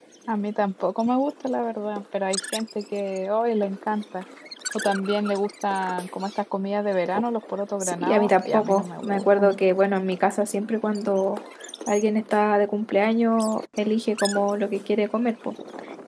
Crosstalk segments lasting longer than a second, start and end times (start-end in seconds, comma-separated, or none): 7.8-9.6